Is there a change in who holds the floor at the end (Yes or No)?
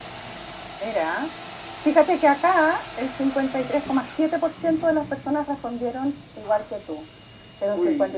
No